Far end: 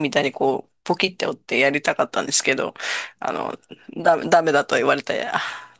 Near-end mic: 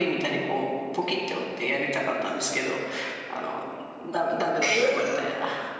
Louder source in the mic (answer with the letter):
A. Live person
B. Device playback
A